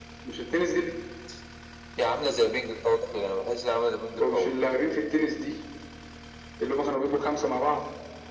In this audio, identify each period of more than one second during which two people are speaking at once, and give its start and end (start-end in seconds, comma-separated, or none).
none